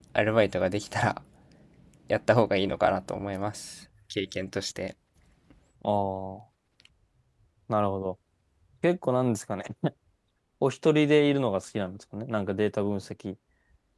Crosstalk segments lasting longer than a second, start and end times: none

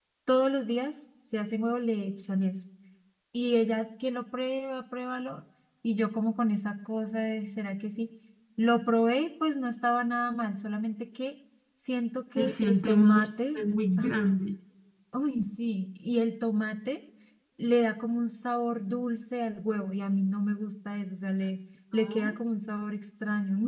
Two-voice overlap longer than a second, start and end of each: 12.4-13.6

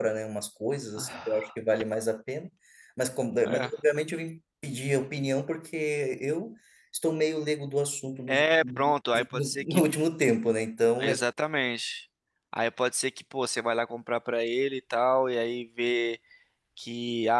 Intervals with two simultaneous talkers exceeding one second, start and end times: 8.3-9.8

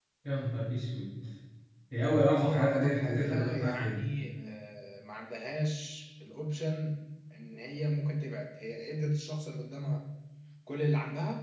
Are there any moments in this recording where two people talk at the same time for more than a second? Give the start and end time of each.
2.4-4.0

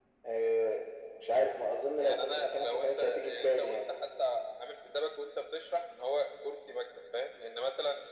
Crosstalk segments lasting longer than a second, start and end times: 2.0-3.8

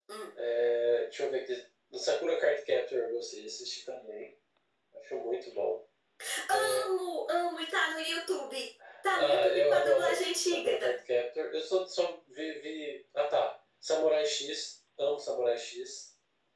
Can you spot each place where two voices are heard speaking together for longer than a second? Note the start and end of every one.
9.1-10.8

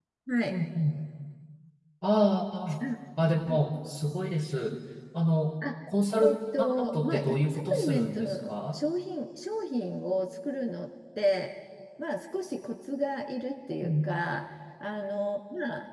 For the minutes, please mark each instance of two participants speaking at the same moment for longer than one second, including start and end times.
6.2-8.8

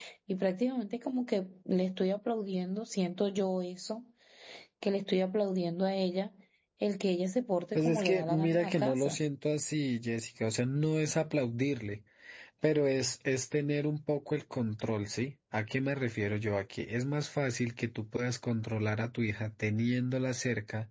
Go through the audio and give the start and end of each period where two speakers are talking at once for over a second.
7.8-9.2

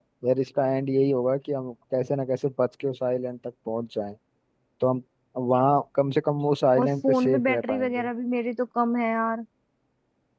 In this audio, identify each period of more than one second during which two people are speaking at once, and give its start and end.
6.8-8.1

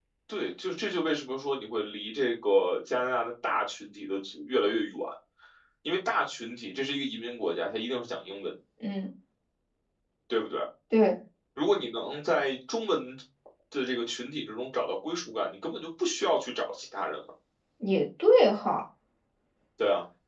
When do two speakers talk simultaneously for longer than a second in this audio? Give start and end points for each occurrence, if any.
none

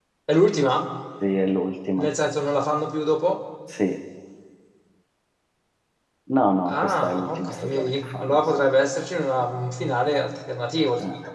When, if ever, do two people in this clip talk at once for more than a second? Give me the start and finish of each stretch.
6.7-8.4

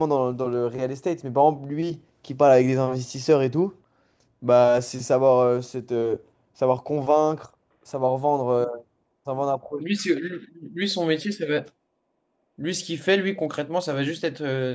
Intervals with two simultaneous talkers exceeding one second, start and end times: none

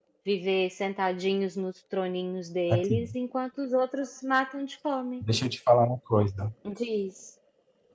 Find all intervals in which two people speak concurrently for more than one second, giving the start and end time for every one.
none

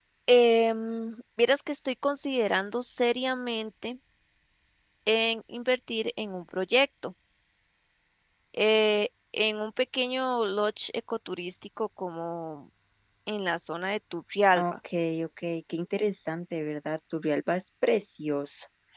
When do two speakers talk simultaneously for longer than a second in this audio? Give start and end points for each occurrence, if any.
none

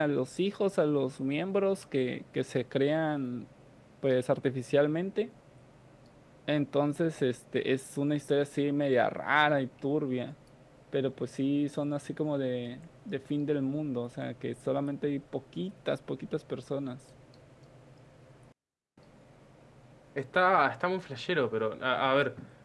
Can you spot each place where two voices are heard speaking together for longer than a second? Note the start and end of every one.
none

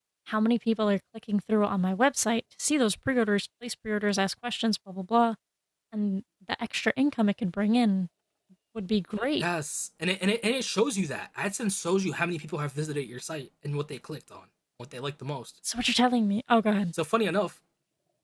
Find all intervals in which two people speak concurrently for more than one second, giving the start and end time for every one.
none

